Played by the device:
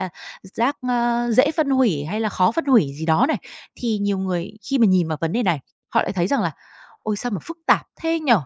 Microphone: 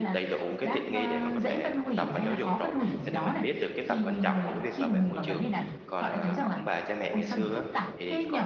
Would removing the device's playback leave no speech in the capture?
No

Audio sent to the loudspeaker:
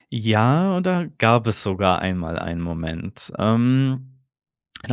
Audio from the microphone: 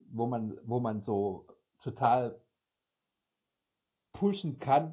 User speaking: Yes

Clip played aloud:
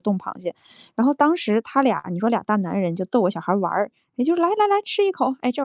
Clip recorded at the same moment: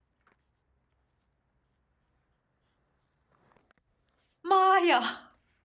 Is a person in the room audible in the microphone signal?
Yes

